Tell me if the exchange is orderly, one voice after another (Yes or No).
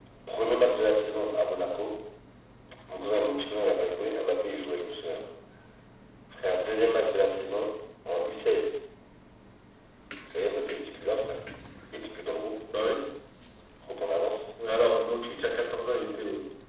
Yes